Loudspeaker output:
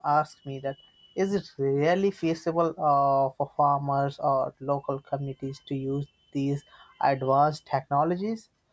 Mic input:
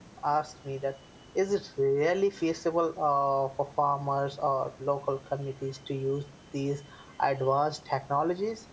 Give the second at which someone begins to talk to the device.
none

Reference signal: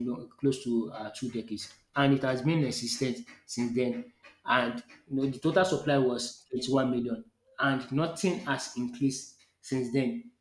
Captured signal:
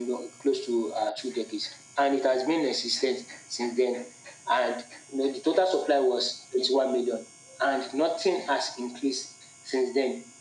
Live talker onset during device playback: none

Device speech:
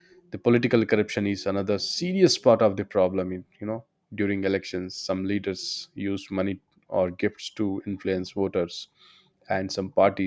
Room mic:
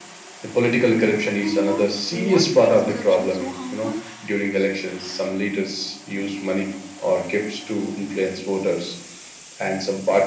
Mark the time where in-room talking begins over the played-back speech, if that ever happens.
1 s

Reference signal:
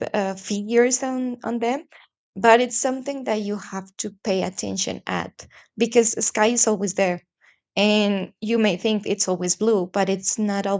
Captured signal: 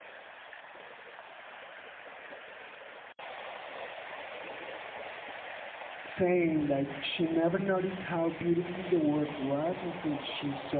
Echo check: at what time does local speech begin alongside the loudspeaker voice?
6 s

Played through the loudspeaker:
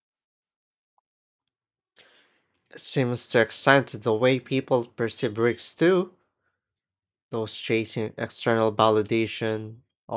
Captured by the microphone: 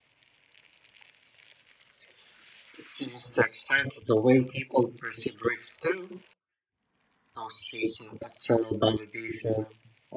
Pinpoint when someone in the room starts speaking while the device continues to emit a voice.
none

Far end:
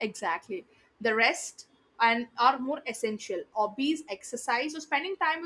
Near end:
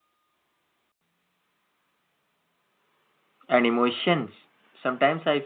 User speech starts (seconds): 3 s

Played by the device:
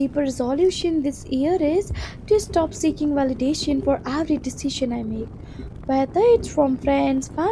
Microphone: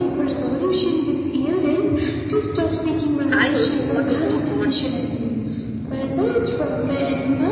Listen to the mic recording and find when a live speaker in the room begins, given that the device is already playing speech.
3 s

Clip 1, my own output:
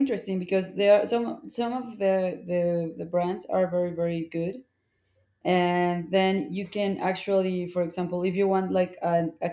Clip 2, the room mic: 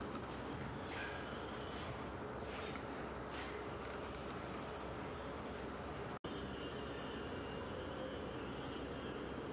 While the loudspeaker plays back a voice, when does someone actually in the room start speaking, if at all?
none

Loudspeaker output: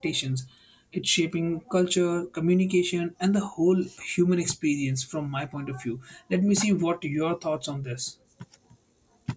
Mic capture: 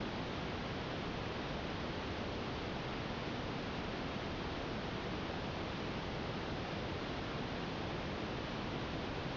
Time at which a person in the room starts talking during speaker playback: none

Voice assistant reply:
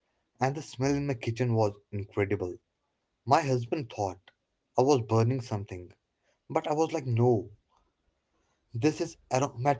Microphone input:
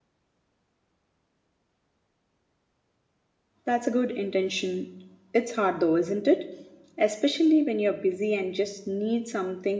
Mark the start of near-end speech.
4 s

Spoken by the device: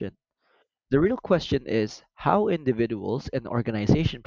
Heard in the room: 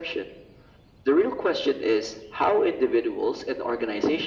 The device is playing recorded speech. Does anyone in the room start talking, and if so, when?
none

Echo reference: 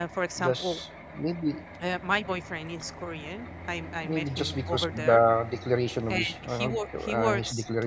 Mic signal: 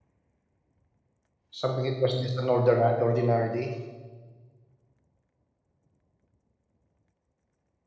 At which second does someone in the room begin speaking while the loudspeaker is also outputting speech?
2 s

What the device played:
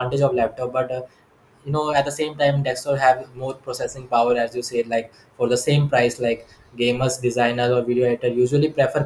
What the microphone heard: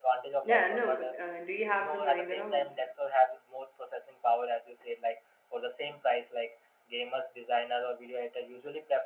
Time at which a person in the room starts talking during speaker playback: 0 s

